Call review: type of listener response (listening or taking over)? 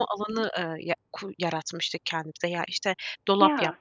listening